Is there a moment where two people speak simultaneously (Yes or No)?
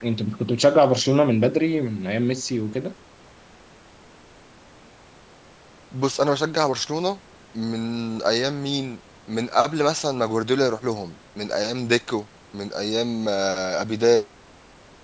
No